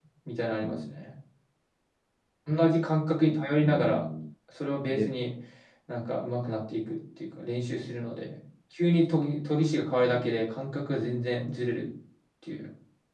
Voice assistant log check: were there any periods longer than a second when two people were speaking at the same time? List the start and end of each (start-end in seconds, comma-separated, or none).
none